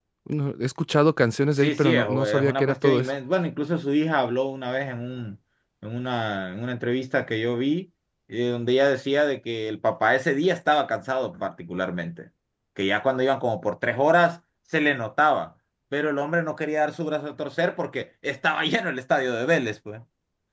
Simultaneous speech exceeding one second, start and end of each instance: 1.6-3.1

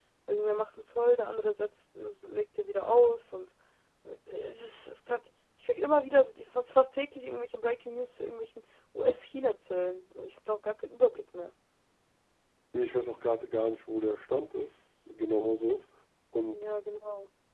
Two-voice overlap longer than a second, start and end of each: none

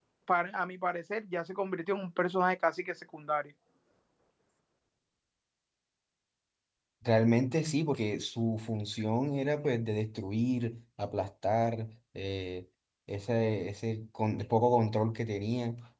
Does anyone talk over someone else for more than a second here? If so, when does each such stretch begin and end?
none

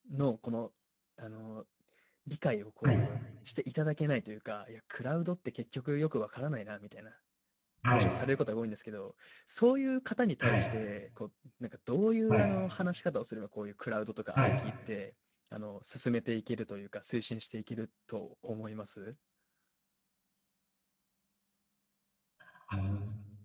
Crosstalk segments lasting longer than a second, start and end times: none

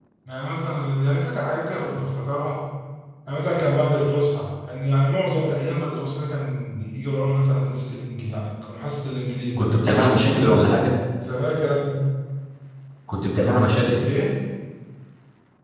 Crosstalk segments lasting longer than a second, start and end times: none

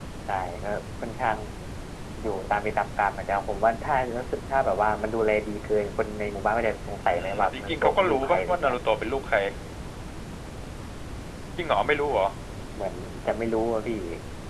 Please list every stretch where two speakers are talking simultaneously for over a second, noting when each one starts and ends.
7.0-8.8

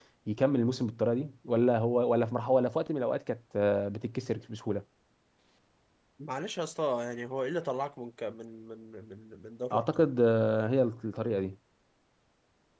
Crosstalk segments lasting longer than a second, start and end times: none

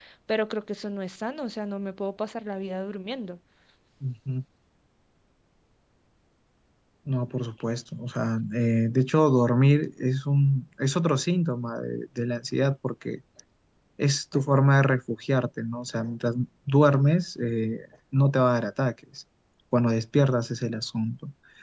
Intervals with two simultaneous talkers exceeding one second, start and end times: none

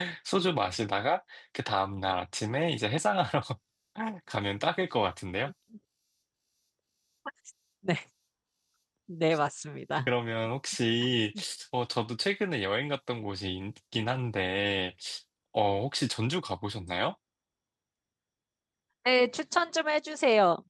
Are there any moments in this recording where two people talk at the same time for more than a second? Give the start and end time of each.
none

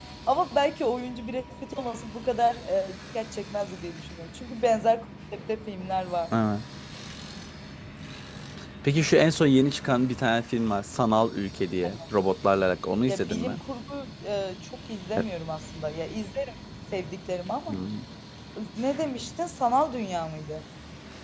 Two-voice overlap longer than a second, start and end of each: none

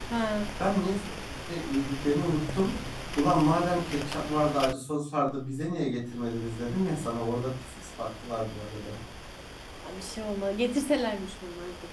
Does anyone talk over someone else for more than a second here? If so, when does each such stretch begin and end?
none

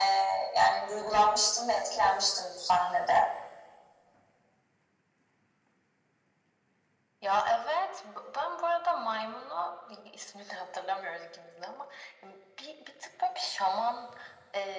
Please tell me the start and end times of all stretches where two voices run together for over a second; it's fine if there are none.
none

